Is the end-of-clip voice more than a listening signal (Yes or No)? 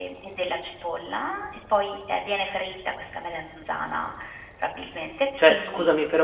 Yes